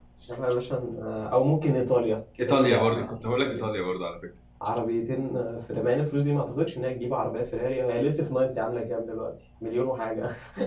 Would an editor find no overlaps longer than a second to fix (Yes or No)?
No